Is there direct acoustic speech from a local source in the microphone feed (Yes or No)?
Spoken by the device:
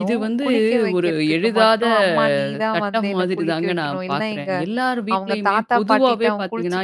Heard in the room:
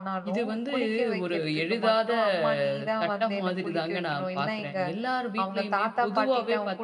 No